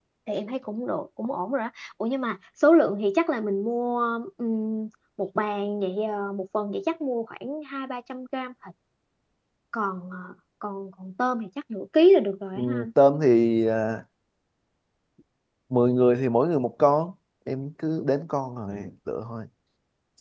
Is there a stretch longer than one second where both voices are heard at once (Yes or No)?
No